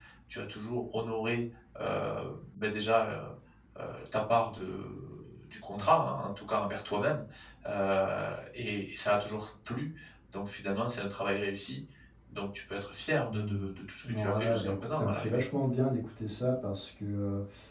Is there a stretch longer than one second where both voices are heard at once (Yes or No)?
Yes